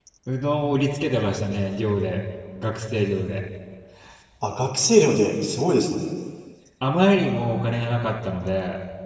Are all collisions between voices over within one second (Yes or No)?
Yes